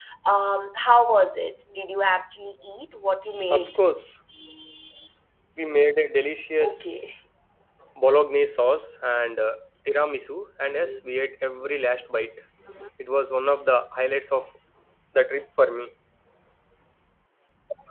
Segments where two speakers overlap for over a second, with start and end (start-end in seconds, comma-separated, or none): none